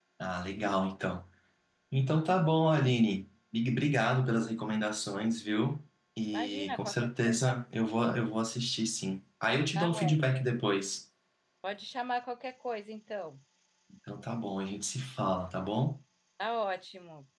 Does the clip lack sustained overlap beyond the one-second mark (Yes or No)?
No